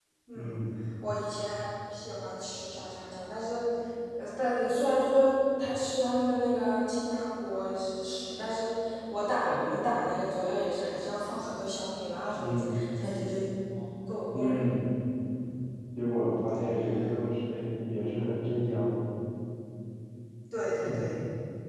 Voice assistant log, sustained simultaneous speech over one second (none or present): none